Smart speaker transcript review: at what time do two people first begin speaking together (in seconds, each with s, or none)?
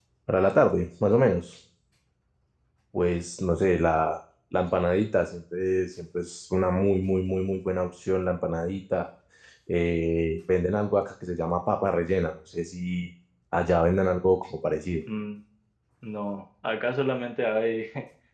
none